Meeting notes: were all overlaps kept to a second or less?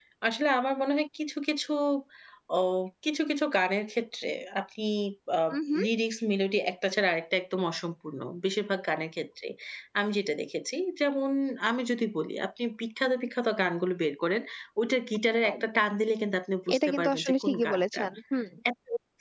No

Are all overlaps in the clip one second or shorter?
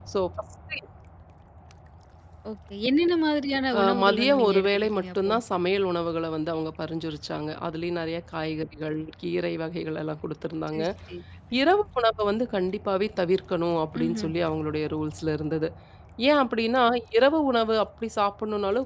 No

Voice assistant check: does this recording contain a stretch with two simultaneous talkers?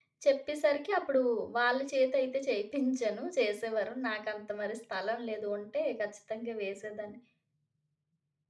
No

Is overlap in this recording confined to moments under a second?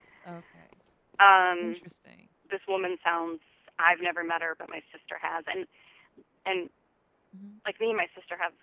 Yes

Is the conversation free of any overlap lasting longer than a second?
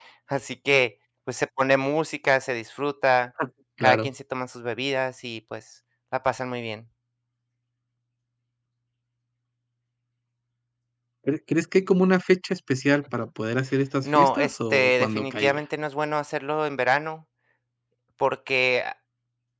No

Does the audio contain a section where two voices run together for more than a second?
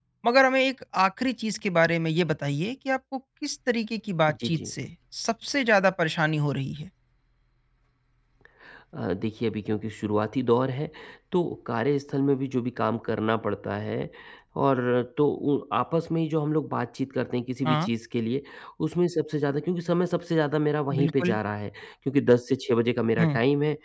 No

